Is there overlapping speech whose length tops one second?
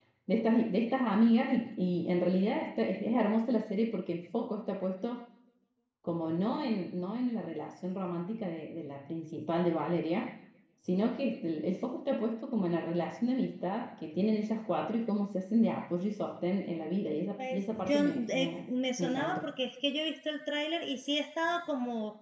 Yes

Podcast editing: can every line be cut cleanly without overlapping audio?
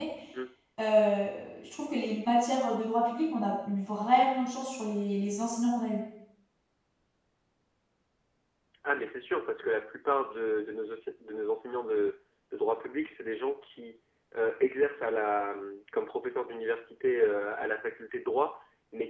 Yes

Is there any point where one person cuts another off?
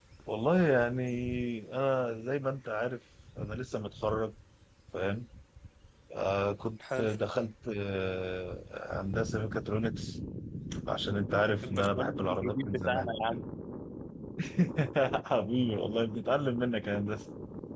Yes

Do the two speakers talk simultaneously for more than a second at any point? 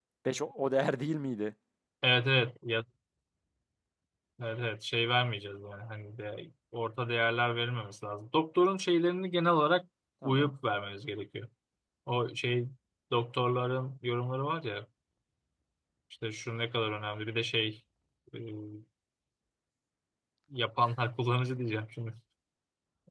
No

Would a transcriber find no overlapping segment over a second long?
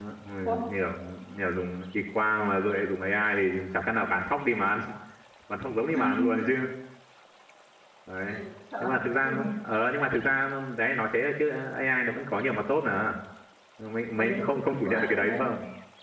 No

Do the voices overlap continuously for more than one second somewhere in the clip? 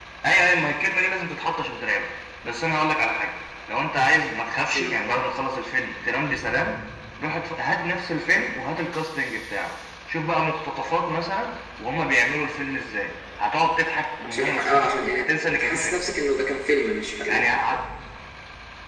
Yes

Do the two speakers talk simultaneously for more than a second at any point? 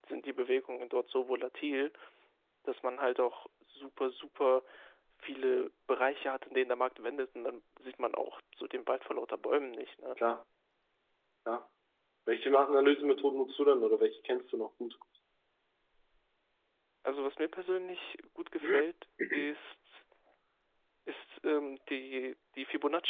No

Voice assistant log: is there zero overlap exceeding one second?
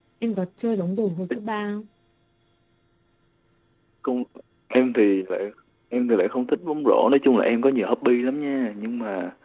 Yes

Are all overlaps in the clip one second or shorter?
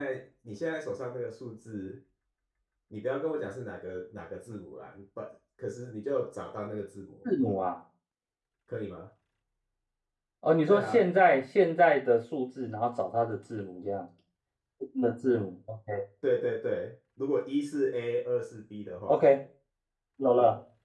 Yes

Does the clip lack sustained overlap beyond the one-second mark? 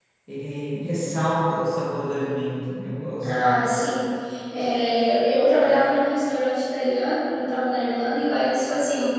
Yes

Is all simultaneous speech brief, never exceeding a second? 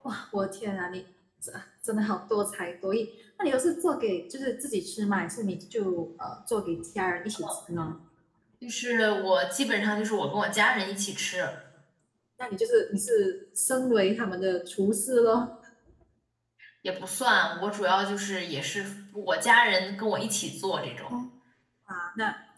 Yes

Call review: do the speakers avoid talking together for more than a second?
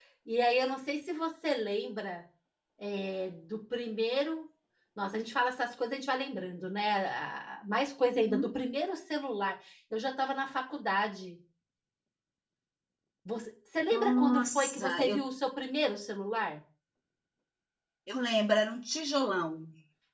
No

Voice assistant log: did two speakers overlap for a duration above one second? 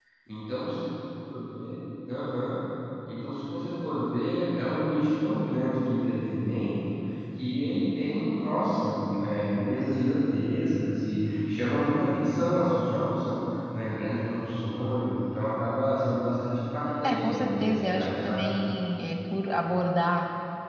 Yes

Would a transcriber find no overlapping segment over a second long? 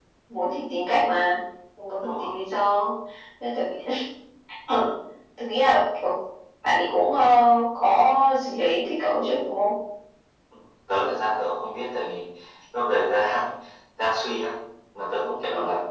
Yes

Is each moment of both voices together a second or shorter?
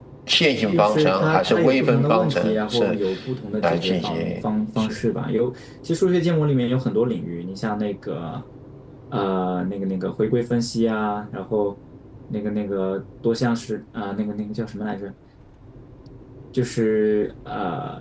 No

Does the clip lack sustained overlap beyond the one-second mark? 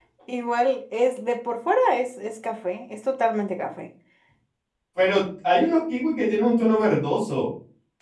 Yes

